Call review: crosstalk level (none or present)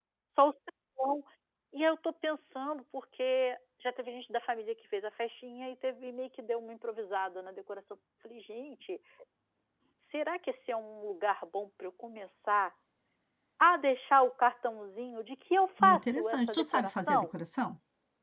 present